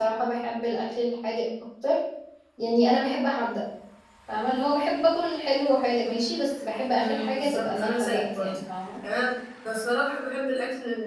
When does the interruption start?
7 s

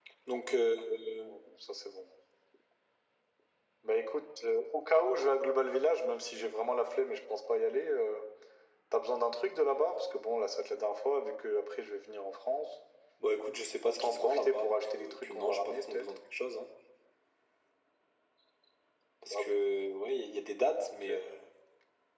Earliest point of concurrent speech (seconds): 14 s

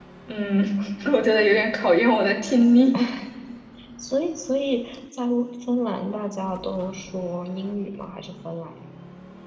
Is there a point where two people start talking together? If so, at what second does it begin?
none

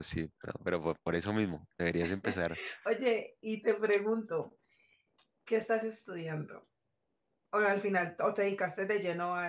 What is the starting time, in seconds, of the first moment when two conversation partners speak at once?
none

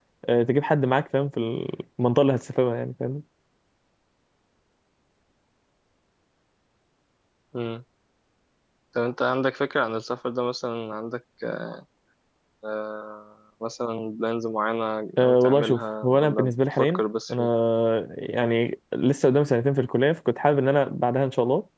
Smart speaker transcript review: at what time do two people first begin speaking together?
15 s

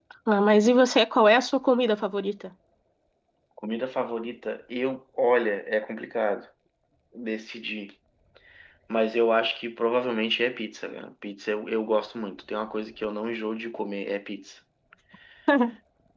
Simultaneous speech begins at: none

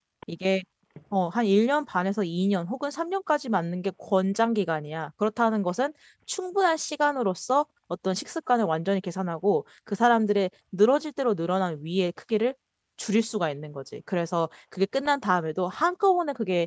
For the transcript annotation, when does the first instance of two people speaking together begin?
none

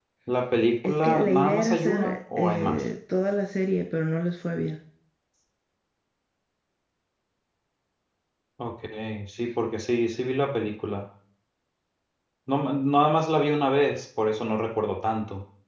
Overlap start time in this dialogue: 1 s

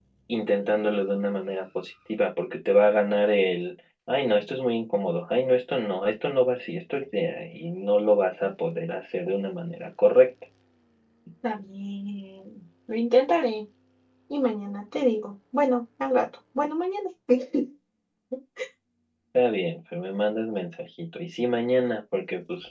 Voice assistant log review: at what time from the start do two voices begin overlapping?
none

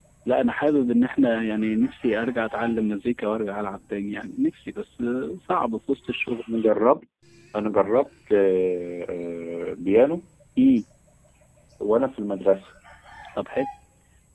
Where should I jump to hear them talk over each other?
none

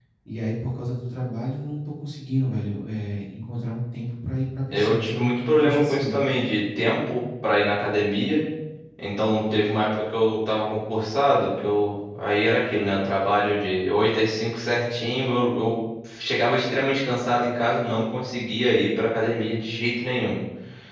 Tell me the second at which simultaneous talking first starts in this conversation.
5 s

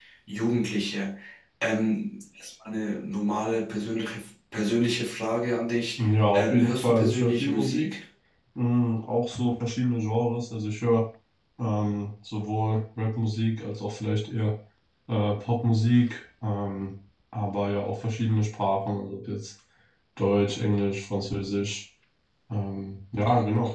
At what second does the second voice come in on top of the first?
6 s

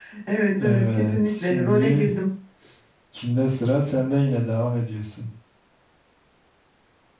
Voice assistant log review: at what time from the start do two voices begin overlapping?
1 s

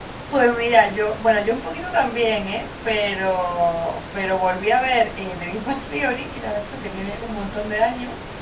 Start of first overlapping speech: none

